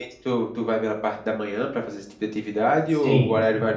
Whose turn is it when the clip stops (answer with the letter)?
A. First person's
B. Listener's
B